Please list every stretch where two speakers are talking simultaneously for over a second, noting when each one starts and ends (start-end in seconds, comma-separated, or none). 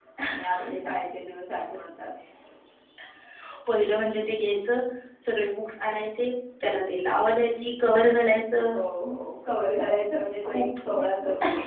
none